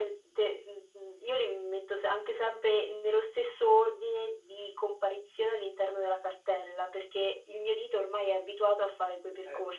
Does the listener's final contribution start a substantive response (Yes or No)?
Yes